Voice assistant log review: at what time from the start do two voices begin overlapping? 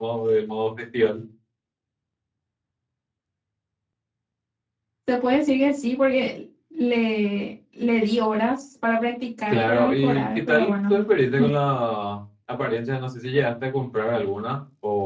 10 s

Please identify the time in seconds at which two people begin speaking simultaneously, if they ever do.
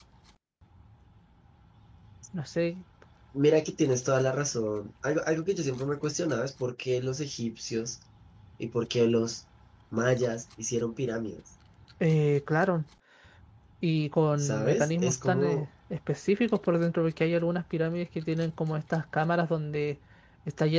14 s

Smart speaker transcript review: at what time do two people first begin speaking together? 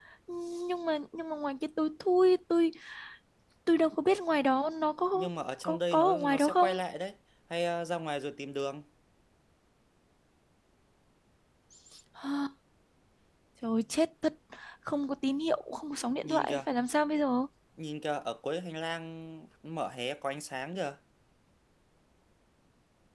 5 s

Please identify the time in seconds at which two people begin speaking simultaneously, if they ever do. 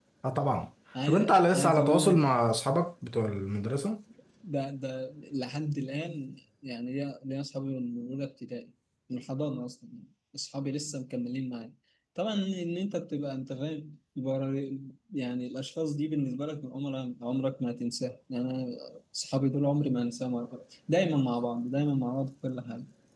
1 s

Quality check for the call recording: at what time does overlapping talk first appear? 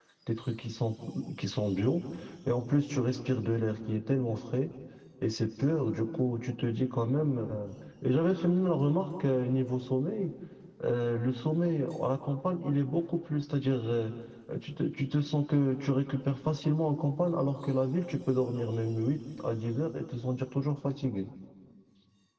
none

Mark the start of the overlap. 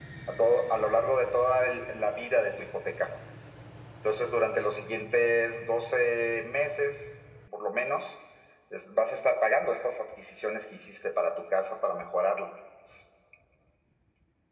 none

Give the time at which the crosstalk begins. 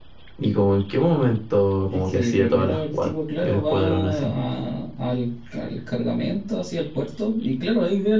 2 s

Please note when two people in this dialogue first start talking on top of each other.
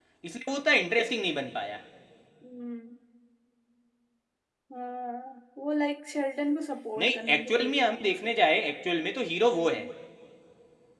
7 s

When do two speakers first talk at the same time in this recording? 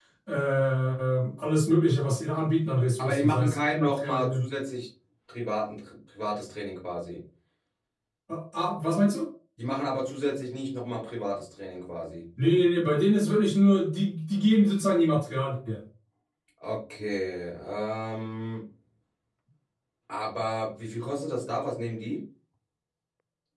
3 s

